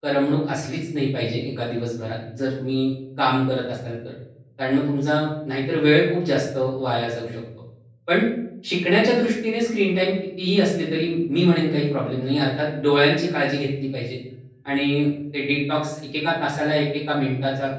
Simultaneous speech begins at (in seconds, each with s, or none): none